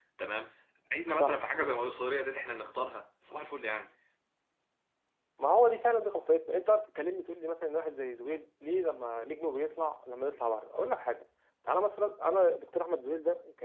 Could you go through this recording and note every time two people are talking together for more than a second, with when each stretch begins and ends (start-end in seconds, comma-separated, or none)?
none